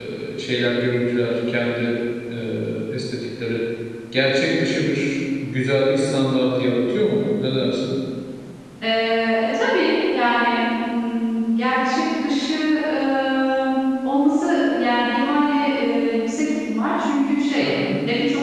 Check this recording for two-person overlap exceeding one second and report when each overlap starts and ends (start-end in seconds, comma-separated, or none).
none